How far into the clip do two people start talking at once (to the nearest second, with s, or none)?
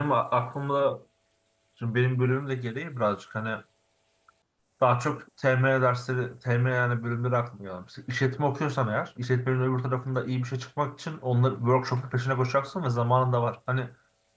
none